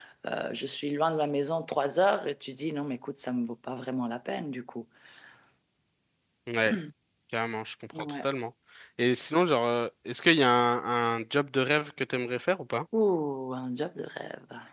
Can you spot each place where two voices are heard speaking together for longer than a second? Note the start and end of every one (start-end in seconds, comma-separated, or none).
none